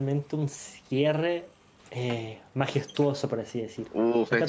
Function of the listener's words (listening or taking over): taking over